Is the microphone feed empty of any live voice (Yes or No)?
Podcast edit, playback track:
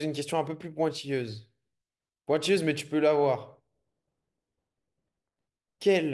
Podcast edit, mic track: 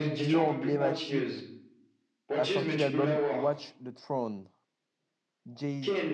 No